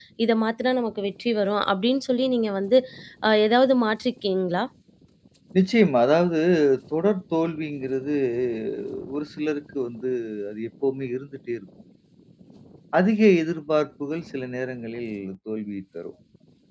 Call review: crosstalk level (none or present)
none